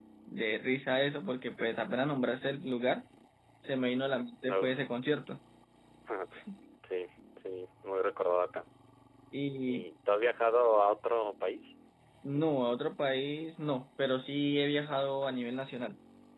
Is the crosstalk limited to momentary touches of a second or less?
Yes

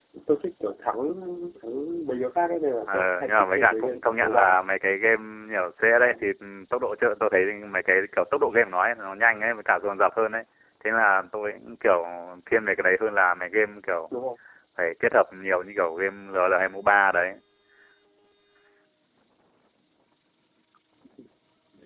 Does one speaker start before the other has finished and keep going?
Yes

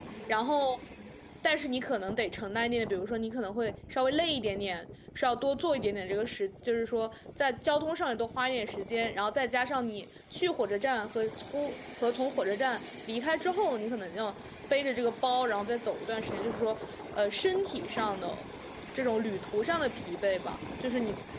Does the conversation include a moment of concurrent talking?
No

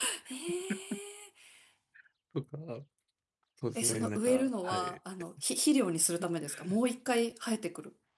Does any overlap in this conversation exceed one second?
Yes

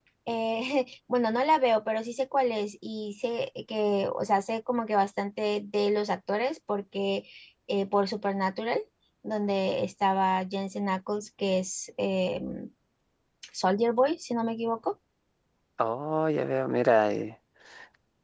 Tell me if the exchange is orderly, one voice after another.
Yes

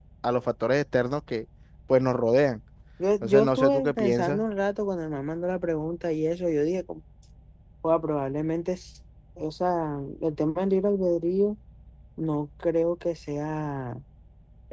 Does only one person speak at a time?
No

